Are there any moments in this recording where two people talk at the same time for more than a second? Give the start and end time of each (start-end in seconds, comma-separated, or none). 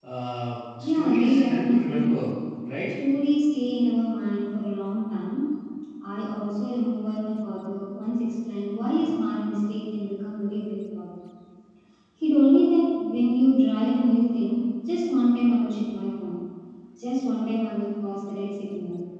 0.8-2.3